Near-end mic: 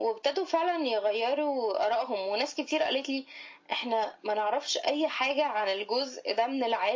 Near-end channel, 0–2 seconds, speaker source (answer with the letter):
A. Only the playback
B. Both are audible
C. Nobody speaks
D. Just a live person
A